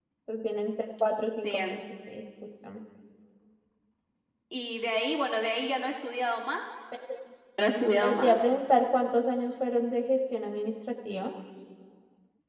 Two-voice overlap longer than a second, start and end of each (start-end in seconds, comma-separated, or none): none